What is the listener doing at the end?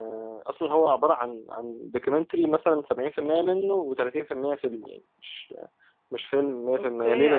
taking over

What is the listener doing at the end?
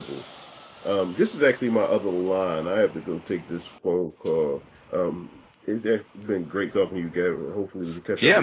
taking over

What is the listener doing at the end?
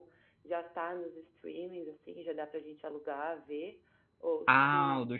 taking over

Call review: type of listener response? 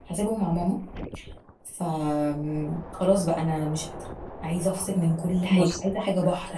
listening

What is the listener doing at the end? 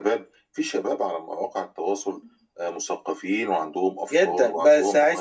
taking over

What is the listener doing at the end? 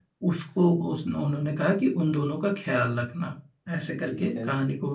listening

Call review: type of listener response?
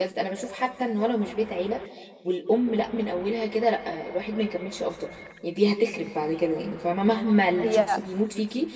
listening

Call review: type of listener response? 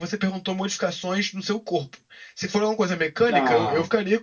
listening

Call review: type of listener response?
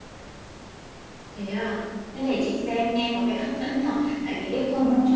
listening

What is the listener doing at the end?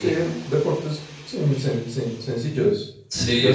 taking over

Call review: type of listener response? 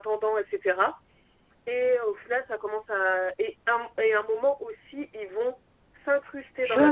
taking over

